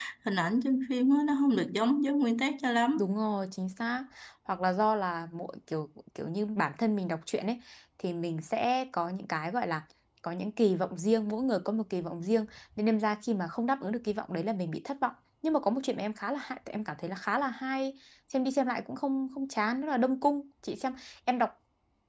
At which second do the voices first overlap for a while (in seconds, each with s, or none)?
none